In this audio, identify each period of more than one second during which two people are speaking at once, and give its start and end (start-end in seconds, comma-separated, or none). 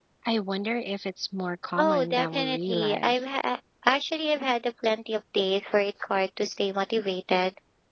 1.8-3.2